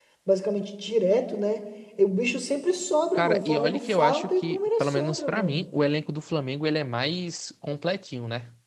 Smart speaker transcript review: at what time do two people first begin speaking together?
3.1 s

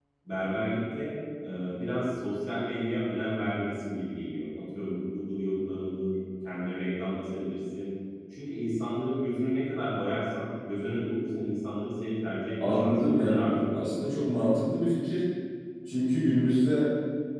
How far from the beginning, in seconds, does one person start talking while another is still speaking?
12.6 s

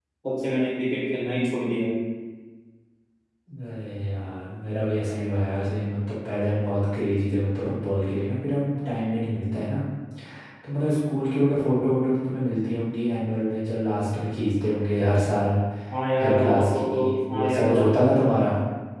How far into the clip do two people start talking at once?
16.2 s

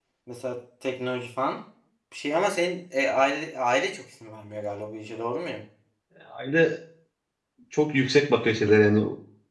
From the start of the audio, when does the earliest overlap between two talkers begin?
none

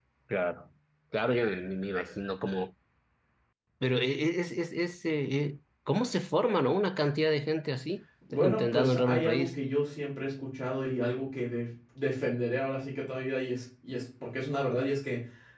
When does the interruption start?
8.3 s

